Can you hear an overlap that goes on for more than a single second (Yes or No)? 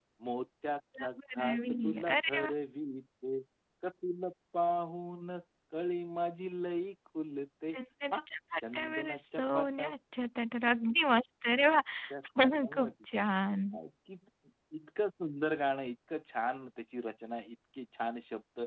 Yes